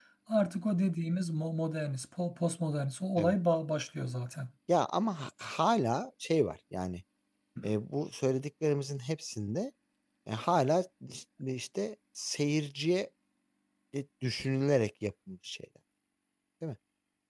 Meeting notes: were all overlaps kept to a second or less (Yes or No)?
Yes